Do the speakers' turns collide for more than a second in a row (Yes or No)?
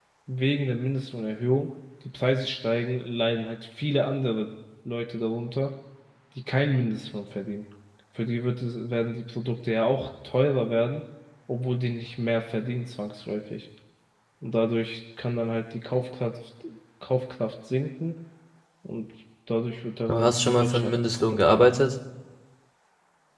Yes